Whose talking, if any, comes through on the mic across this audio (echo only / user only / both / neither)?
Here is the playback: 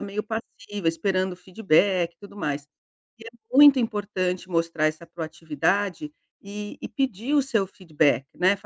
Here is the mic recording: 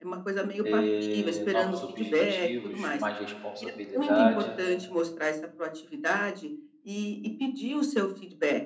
both